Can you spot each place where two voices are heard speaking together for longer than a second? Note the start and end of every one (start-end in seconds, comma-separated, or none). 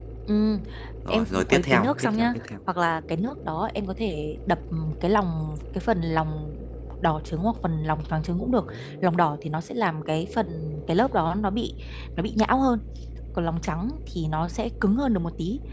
1.1-2.4